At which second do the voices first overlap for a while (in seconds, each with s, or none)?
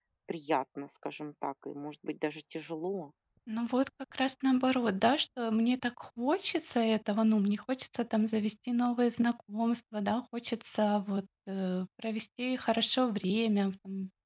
none